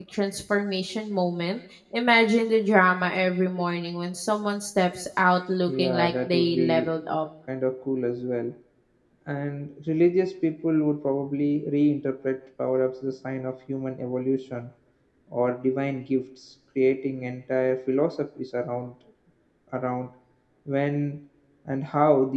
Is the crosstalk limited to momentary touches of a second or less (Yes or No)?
No